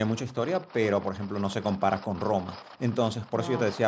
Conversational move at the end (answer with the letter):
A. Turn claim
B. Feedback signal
B